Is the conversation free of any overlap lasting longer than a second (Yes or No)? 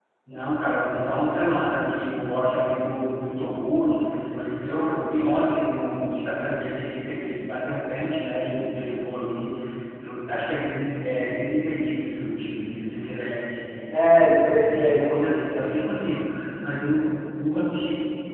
No